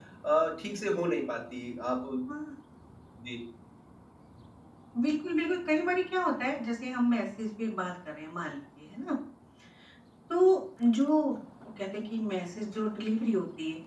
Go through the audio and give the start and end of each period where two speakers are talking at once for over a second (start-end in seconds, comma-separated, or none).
none